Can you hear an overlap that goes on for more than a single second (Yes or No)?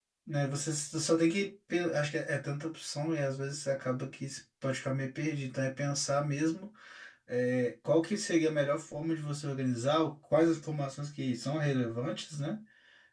No